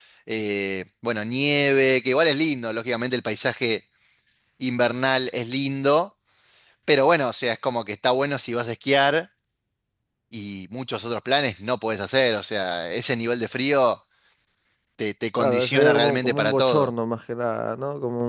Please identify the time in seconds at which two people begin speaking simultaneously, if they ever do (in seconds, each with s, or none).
15.4 s